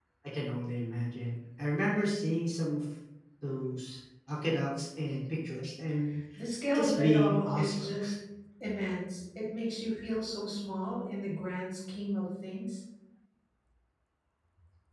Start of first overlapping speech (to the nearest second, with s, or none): 7 s